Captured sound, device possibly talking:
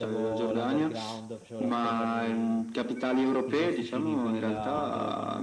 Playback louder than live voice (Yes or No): Yes